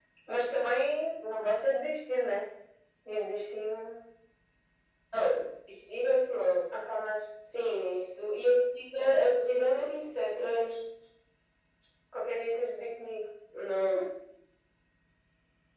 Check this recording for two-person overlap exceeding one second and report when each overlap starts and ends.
none

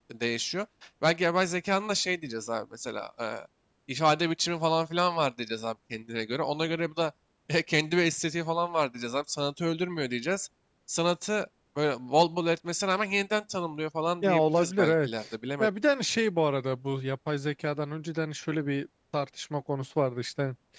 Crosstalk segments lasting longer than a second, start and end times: 14.2-15.7

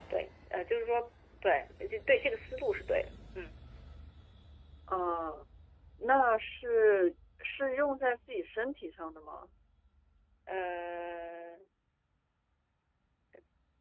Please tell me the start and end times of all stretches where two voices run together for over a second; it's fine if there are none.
none

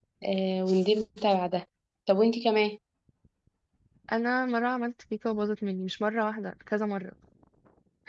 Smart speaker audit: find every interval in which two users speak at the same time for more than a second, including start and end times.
none

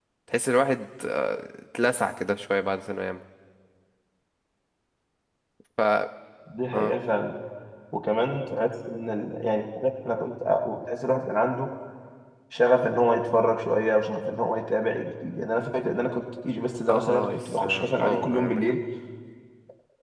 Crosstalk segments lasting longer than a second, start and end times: 16.9-18.7

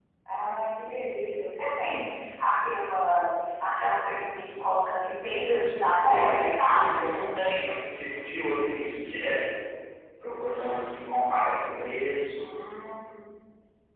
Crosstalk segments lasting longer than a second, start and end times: 5.8-7.1

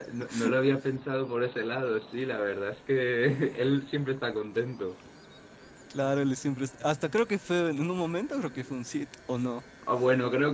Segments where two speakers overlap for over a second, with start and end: none

